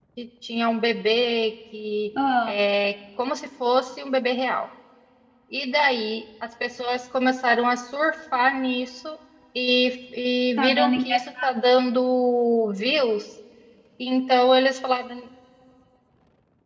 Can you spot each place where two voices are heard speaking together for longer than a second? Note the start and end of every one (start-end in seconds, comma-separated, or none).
10.6-11.9